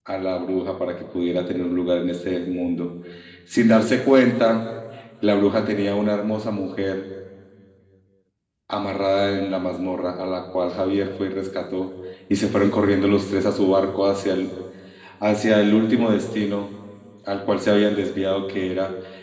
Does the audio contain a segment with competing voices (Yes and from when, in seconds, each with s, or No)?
No